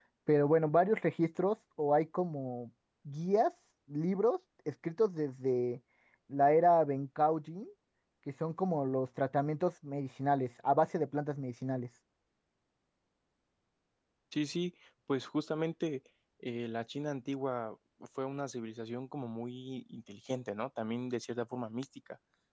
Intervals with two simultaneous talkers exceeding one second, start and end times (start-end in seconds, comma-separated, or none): none